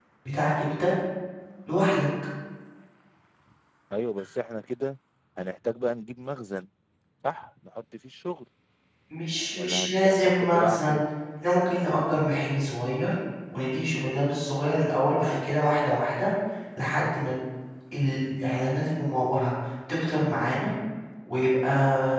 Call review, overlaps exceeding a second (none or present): present